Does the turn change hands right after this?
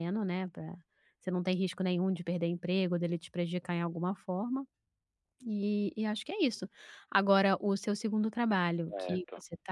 No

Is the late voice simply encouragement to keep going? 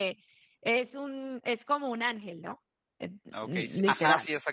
No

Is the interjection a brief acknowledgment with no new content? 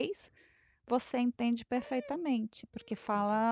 Yes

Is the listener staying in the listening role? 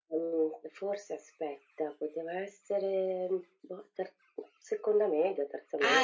No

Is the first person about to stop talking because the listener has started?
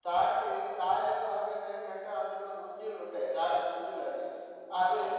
No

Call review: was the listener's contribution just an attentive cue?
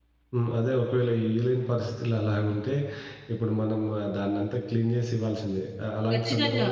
Yes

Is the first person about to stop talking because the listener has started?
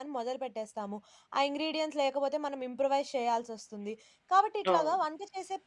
No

